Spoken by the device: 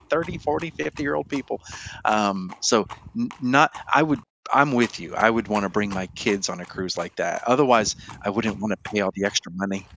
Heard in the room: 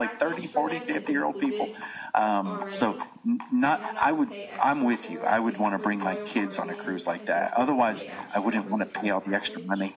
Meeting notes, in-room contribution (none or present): present